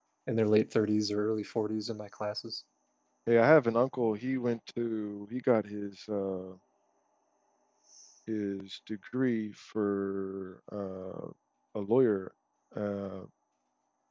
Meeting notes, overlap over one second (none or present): none